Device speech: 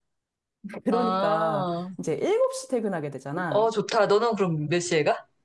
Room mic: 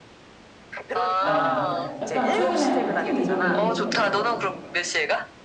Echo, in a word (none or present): present